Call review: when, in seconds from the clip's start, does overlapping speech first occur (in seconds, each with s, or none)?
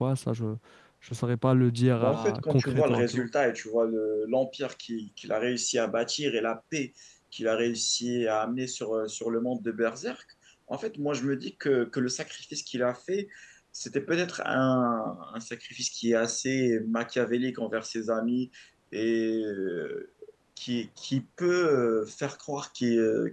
2.0 s